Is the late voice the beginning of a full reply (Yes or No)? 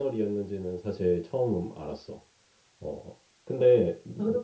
Yes